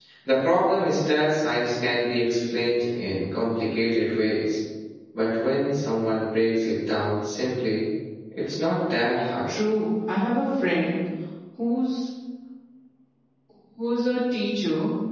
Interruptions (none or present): none